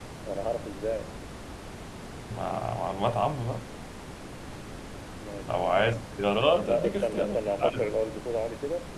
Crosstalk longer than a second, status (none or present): present